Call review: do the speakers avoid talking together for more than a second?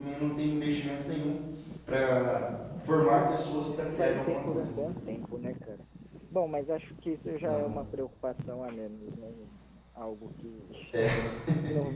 No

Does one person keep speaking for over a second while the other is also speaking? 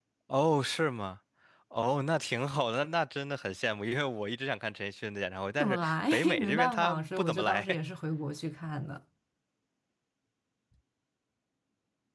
Yes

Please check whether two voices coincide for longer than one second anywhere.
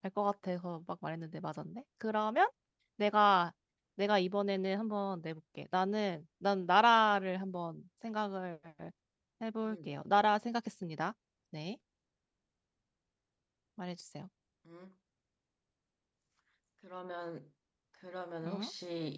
No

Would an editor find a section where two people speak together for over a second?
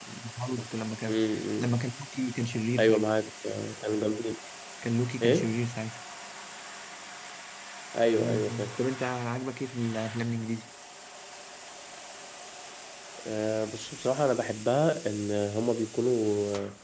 No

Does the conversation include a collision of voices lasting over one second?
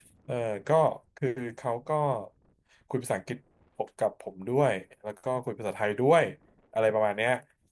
No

